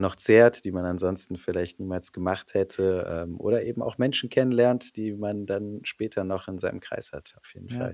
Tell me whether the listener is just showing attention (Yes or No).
No